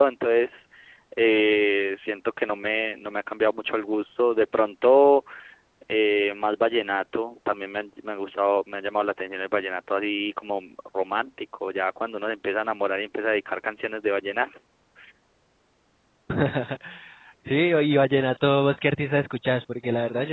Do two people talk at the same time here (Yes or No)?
No